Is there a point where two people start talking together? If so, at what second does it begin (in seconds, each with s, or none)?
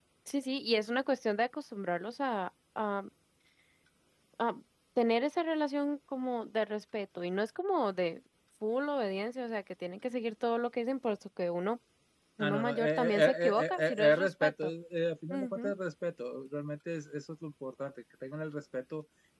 12.4 s